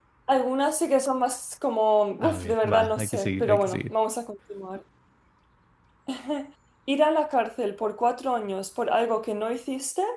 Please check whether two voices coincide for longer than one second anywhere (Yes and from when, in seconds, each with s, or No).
Yes, from 2.2 s